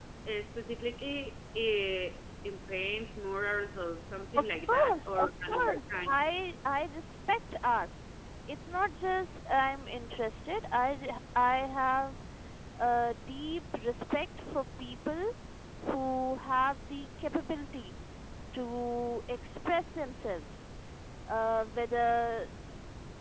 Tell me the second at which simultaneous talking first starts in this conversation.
4.3 s

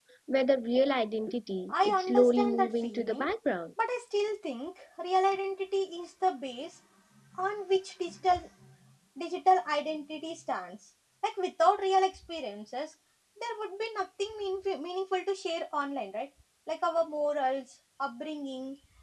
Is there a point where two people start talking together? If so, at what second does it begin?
1.7 s

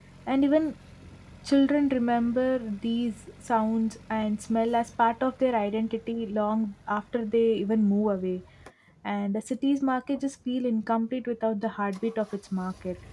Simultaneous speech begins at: none

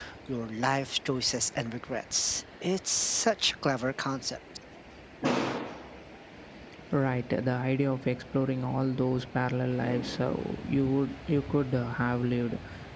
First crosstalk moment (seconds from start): none

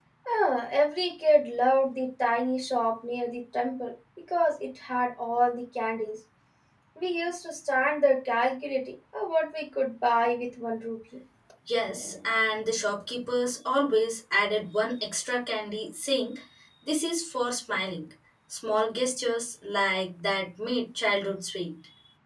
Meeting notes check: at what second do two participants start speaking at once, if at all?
none

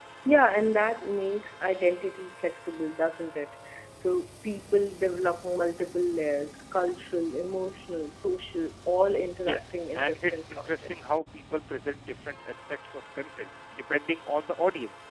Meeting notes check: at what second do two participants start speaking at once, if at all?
9.4 s

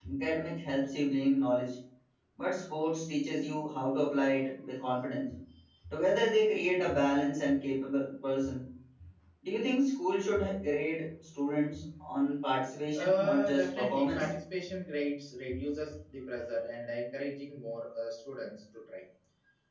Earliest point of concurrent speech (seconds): 13.0 s

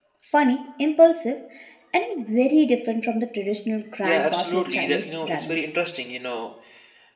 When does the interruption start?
4.0 s

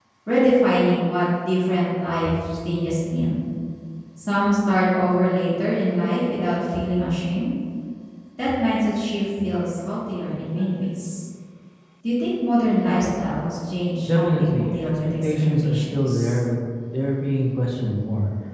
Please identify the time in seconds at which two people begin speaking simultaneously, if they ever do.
14.0 s

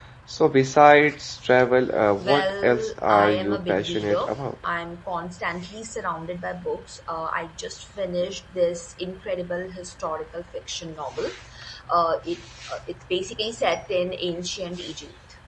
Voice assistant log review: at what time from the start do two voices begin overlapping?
2.2 s

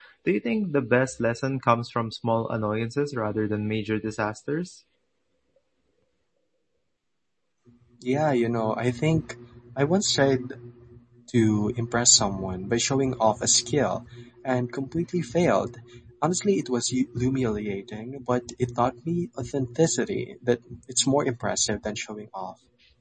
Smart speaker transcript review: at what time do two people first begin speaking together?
none

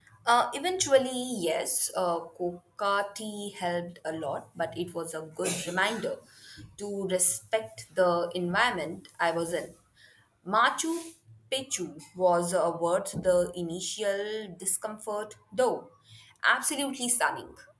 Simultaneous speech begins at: none

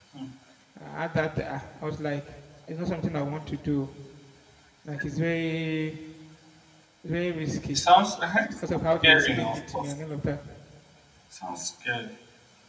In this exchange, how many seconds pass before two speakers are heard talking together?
8.5 s

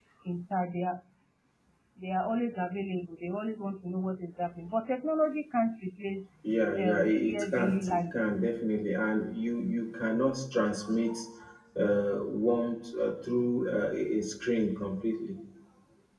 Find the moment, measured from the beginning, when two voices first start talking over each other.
6.8 s

